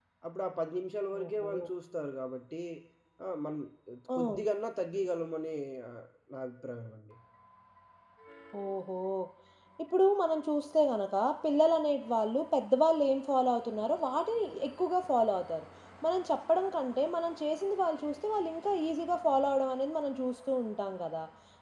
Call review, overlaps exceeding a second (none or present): none